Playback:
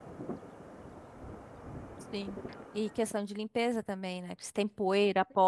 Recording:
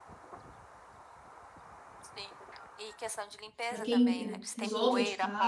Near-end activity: present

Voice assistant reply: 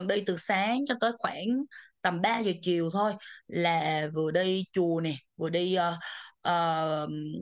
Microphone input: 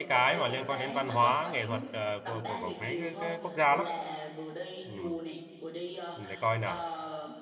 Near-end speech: present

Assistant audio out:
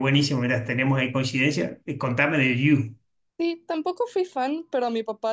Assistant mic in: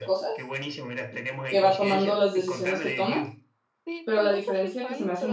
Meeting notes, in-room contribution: present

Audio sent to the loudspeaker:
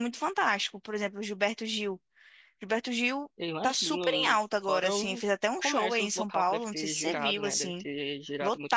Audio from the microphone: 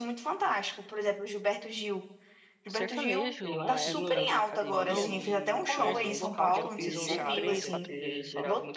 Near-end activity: present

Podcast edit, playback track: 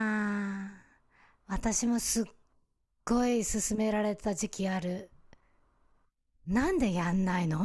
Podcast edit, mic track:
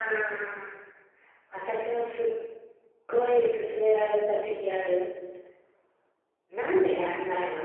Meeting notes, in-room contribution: none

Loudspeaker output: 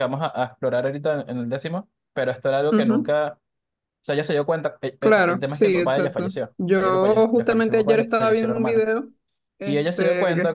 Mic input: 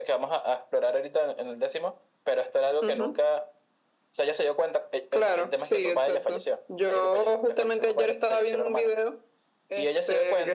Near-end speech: none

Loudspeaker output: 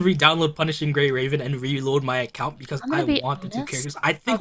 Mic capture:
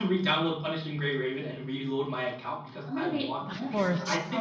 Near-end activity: present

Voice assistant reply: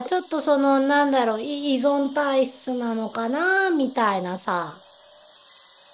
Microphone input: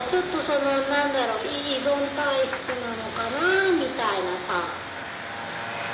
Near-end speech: none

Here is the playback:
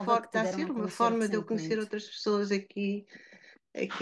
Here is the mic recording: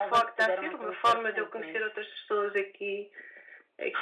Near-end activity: none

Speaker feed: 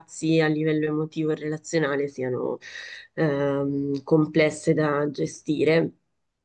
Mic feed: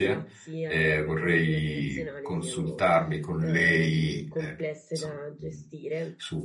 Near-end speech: present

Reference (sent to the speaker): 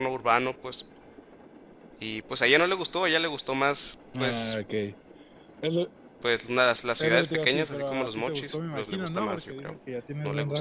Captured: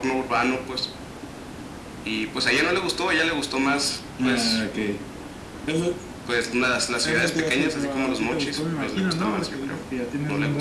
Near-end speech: none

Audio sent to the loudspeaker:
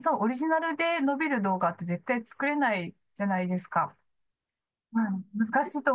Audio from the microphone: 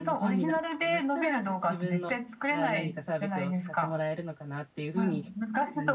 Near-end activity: present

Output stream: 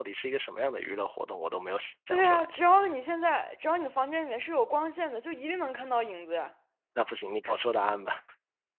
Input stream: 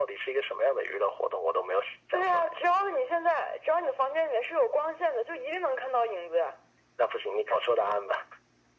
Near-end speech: none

